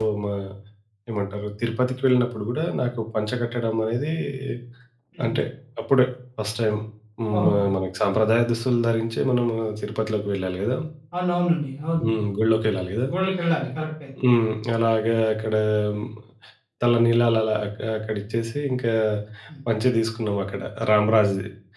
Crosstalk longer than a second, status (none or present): none